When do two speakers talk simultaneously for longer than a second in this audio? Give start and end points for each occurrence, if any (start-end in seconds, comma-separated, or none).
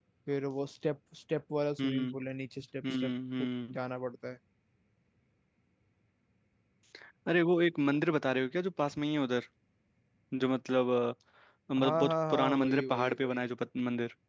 11.8-13.4